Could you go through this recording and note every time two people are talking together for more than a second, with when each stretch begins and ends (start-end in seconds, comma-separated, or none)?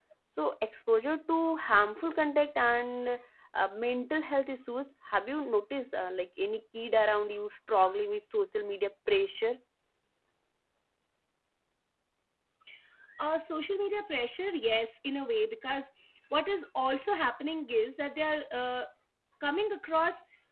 none